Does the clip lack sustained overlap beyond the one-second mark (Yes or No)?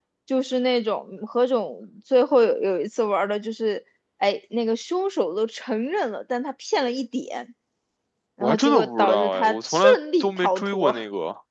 No